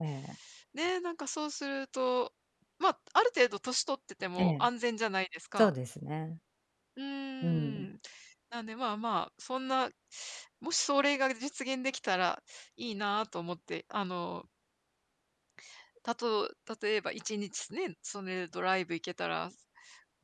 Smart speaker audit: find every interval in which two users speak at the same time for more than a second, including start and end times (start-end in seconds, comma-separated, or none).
none